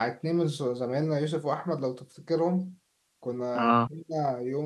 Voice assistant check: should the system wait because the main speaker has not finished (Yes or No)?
Yes